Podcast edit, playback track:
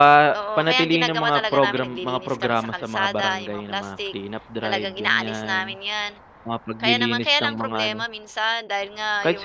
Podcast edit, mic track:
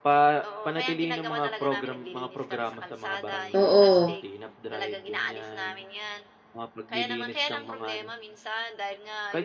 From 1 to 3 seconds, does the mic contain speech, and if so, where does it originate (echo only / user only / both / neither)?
echo only